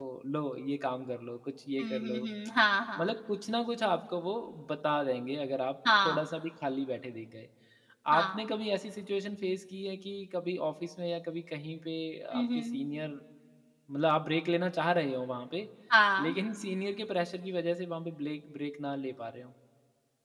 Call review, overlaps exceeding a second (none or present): none